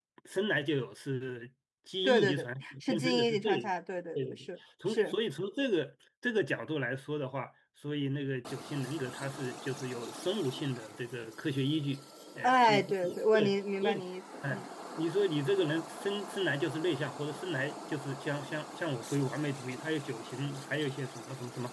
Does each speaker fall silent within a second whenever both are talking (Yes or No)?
No